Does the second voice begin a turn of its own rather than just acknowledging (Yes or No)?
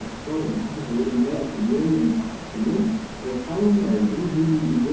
No